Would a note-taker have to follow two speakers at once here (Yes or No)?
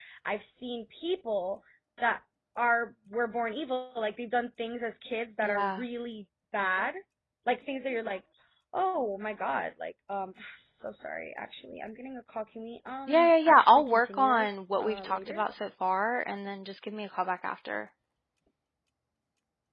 Yes